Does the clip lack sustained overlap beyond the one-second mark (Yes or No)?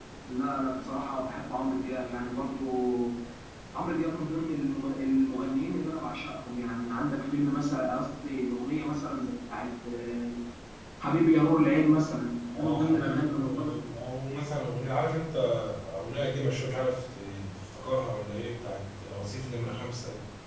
No